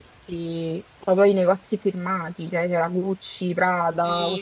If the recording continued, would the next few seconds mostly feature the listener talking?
Yes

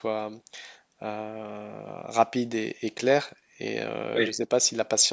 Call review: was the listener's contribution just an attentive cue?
Yes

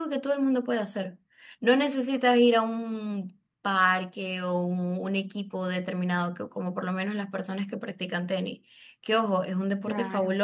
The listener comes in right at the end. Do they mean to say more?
No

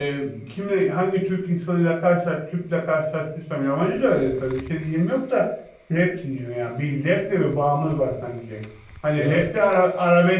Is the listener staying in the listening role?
Yes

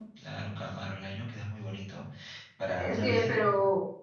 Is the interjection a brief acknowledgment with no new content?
No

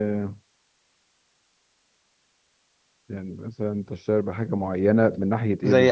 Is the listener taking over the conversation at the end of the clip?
Yes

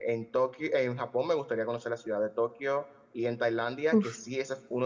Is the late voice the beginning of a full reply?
No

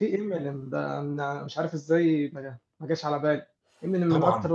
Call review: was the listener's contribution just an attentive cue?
Yes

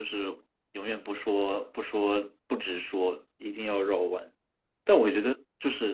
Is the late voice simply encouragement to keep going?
Yes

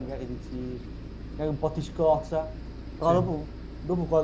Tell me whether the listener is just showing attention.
Yes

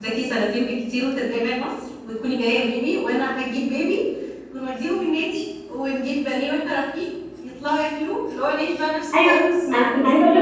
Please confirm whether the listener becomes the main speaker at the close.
Yes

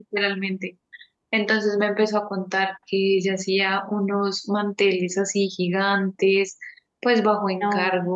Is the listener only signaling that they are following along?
Yes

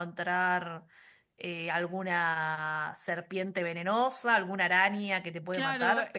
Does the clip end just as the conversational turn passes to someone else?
Yes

